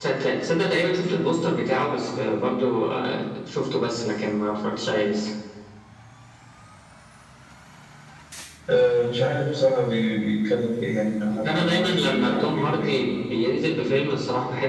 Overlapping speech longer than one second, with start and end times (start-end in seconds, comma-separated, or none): 11.3-12.9